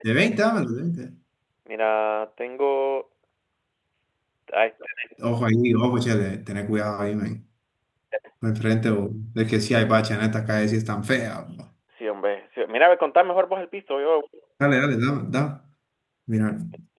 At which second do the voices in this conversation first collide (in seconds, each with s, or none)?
none